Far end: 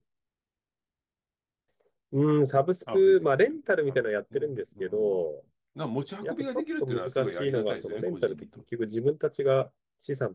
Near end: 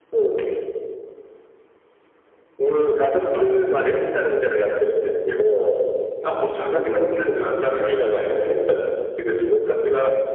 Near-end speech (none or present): present